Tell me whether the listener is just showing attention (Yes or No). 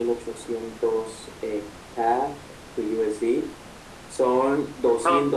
Yes